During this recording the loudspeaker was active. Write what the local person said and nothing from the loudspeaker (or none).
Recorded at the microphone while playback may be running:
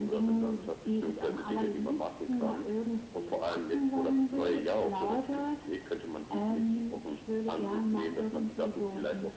none